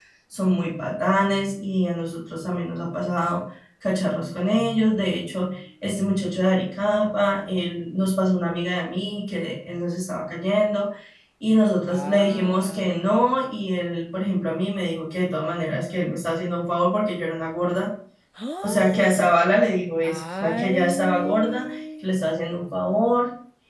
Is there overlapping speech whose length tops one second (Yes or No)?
Yes